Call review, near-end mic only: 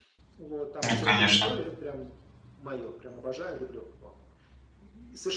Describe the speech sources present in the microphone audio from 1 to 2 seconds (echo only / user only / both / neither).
both